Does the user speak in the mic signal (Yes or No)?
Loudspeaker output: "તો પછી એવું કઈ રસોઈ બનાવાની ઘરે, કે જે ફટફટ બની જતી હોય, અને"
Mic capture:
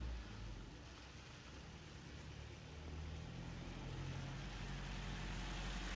No